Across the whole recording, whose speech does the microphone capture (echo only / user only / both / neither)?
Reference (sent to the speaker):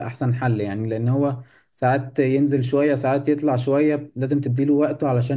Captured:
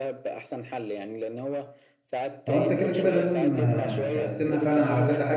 both